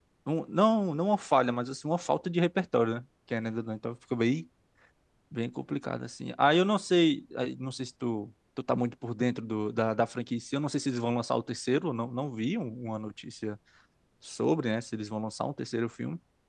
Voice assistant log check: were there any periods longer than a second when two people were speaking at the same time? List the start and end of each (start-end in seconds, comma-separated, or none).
none